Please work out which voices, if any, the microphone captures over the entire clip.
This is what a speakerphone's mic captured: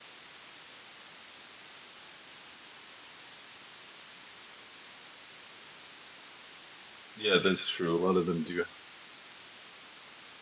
user only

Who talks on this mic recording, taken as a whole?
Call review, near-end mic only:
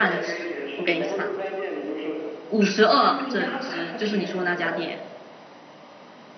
both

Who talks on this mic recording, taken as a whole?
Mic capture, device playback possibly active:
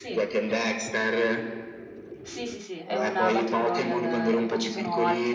both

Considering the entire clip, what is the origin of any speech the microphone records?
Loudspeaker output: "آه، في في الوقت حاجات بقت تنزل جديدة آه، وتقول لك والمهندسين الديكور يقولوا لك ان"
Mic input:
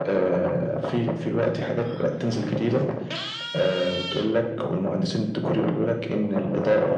echo only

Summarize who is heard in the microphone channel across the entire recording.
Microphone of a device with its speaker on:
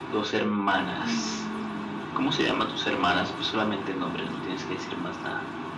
both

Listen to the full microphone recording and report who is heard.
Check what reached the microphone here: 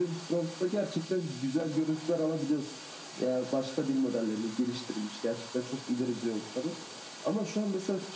echo only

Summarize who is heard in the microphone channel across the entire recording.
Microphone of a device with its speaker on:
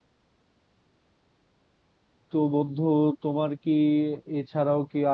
user only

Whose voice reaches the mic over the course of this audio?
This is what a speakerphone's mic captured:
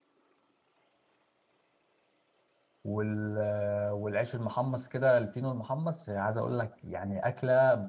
user only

